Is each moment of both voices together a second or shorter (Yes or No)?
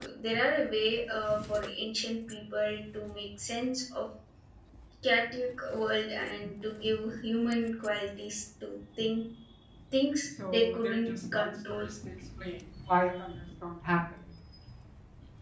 No